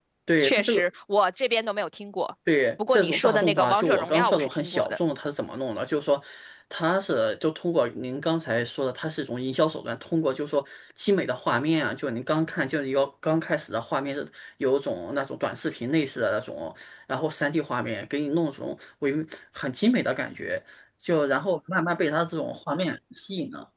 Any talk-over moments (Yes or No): Yes